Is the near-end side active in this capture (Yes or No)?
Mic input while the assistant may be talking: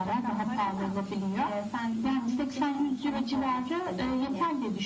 No